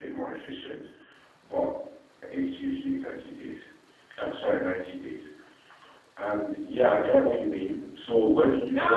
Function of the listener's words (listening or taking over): taking over